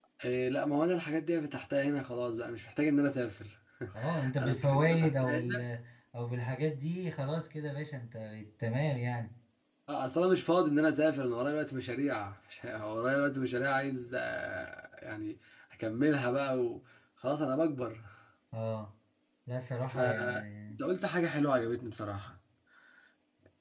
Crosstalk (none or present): present